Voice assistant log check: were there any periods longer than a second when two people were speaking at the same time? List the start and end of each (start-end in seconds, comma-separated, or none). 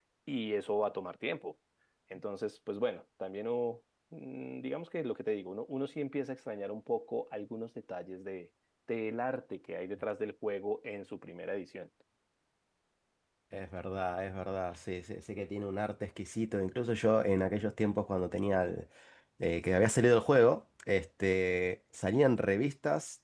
none